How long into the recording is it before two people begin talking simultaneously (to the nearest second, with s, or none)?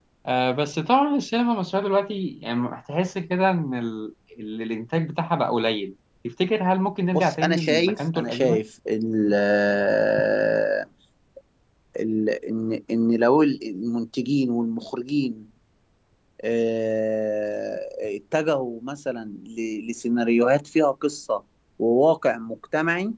7 s